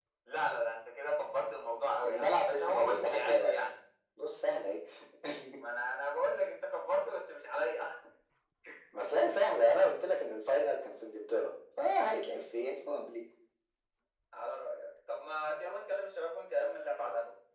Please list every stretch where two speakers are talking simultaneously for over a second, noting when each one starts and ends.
2.0-3.5

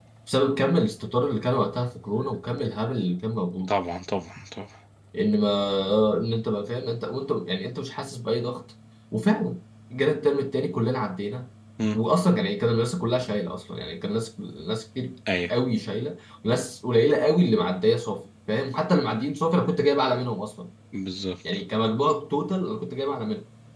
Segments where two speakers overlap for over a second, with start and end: none

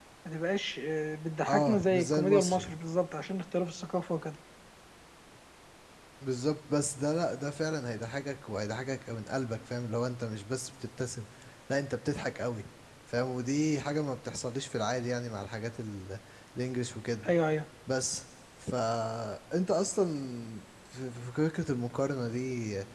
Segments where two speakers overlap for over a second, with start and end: 1.5-2.7

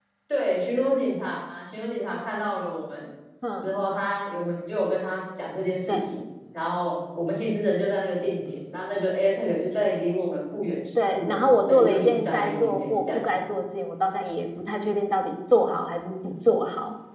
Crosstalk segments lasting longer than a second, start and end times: 11.1-13.2

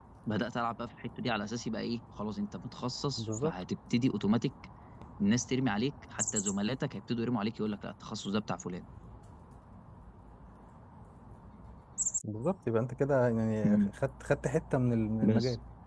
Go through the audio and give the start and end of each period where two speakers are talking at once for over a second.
none

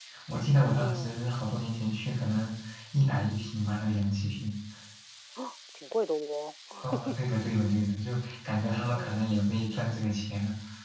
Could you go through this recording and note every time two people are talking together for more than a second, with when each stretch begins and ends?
none

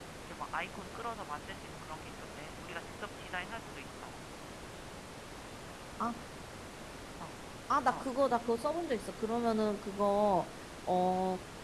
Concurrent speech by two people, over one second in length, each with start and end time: none

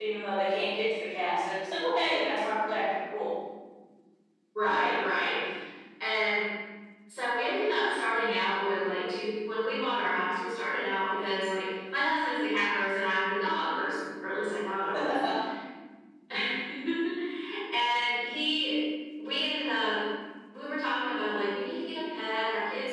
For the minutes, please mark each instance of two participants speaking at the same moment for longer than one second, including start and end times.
none

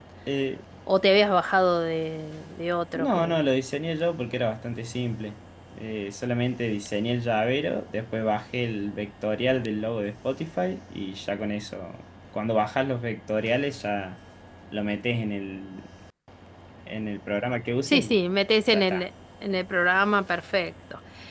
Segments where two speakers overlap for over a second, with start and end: none

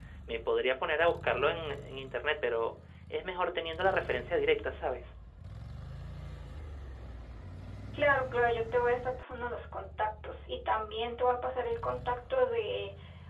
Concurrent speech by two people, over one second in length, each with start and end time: none

